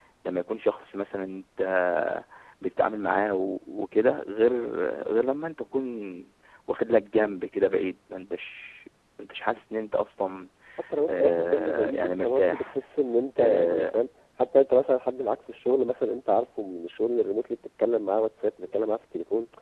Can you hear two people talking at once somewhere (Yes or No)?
Yes